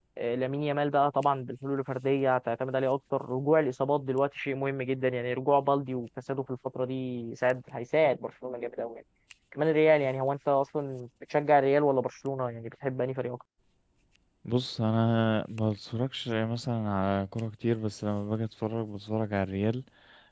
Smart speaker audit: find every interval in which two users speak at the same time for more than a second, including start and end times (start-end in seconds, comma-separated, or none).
none